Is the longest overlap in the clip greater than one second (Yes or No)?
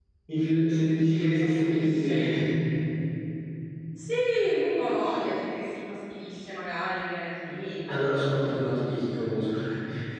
Yes